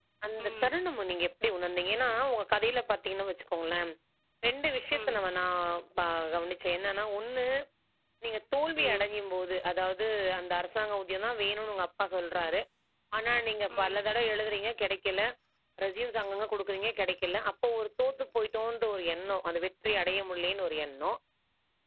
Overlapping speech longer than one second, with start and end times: none

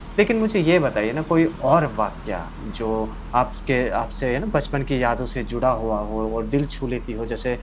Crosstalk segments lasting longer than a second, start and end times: none

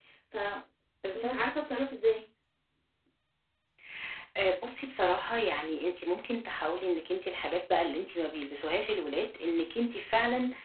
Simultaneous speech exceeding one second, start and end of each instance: none

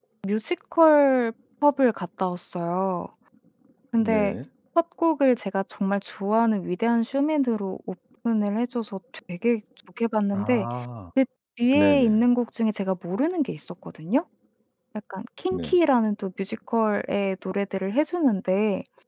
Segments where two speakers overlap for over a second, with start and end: none

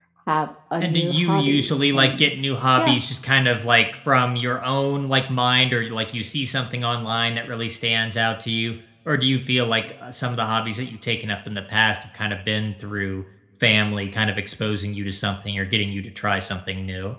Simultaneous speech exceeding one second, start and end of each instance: 0.8-2.3

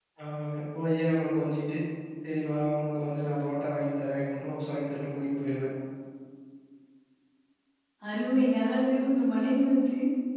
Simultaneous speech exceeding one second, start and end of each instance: none

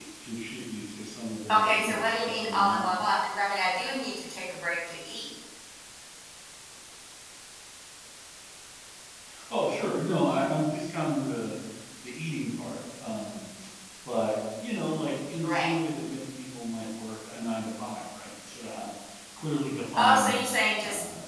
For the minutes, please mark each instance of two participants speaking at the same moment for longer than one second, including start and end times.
1.5-2.9

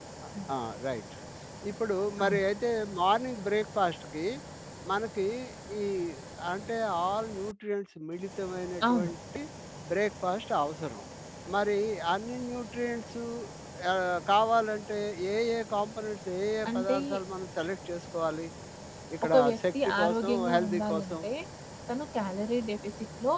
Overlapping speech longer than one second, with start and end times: 19.3-21.2

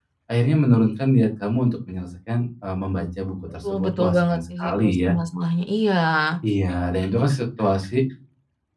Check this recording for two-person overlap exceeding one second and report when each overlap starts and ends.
3.7-5.1

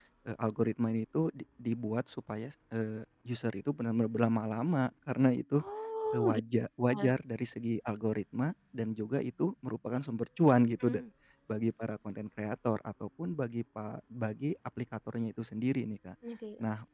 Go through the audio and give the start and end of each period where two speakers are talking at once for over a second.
none

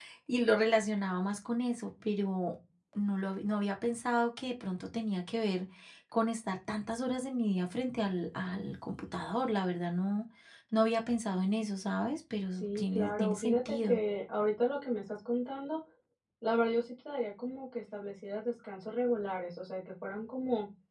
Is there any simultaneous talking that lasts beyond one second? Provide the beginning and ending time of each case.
12.5-14.0

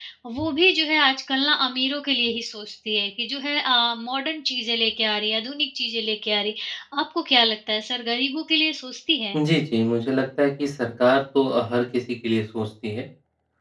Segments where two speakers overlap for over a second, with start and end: none

